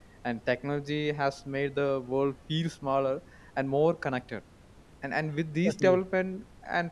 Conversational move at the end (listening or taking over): listening